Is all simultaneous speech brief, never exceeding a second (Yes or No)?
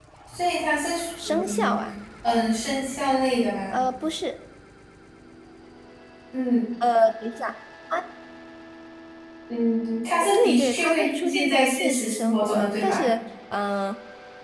No